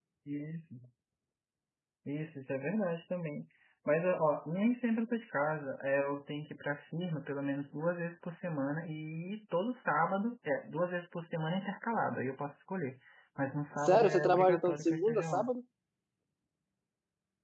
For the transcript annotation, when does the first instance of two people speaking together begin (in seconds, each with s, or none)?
13.8 s